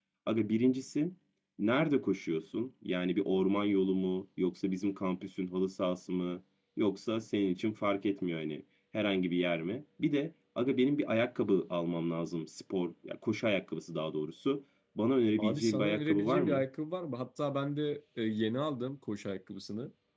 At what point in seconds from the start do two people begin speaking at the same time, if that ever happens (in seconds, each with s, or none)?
15.4 s